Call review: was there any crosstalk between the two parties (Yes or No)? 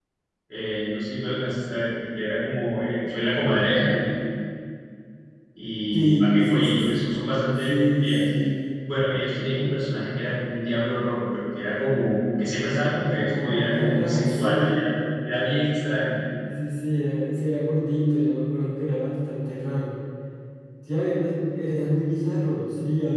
Yes